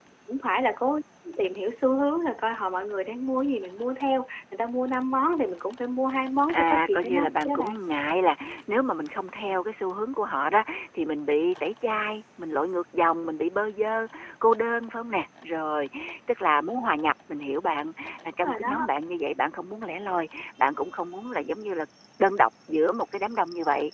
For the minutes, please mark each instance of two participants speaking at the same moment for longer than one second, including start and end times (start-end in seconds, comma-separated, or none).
6.5-7.8